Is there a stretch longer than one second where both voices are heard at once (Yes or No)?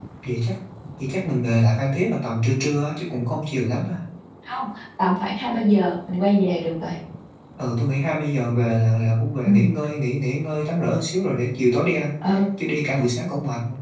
No